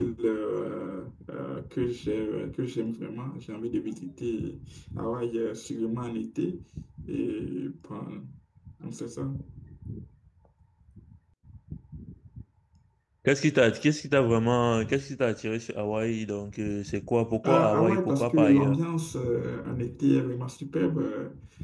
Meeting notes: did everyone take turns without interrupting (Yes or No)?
No